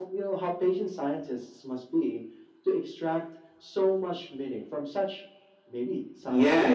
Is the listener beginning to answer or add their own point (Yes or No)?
Yes